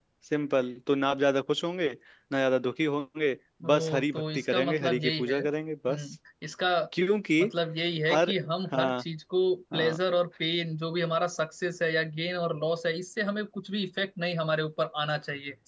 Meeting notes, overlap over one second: present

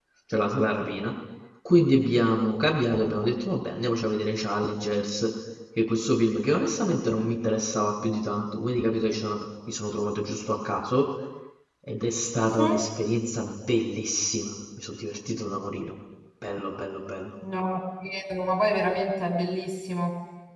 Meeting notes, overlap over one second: none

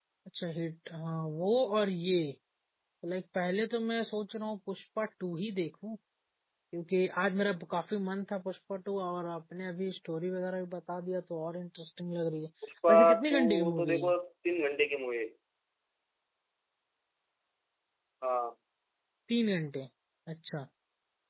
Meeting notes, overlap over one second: present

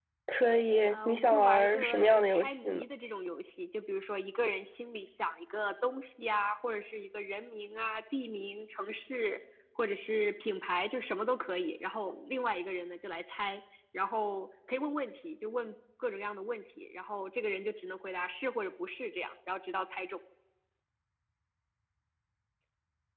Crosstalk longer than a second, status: present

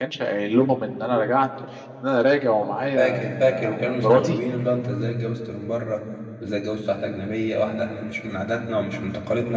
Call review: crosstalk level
present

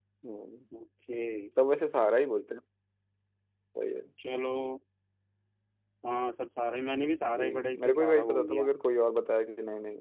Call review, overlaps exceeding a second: present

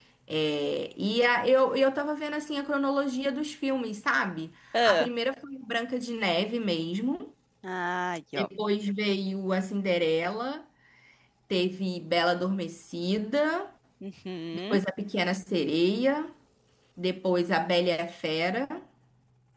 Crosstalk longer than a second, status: none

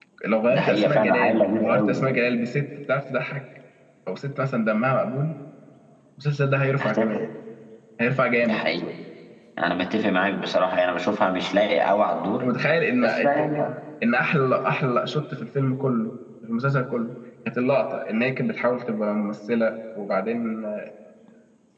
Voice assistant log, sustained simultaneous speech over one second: present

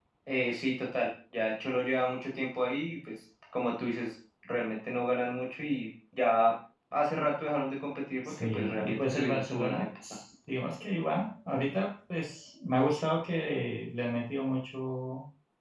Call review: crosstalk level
present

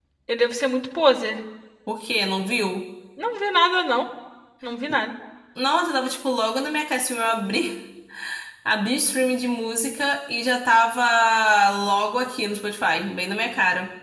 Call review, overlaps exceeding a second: none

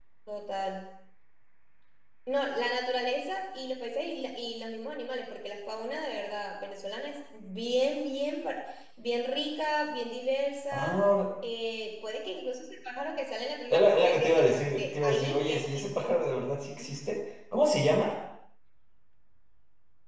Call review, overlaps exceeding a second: present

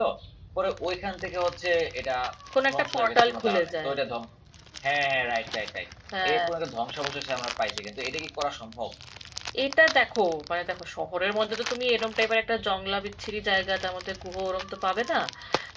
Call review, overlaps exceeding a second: present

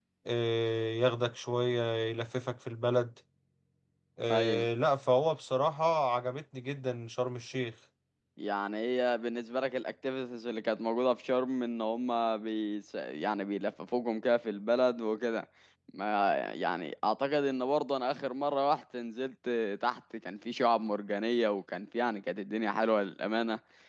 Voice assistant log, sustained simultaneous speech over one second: none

